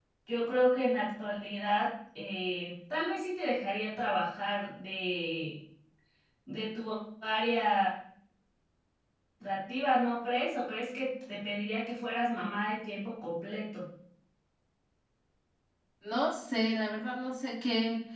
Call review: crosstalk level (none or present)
none